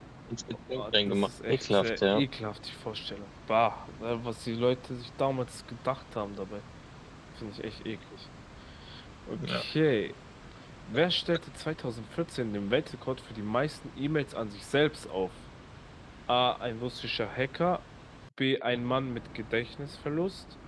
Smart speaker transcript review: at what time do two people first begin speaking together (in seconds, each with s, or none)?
0.8 s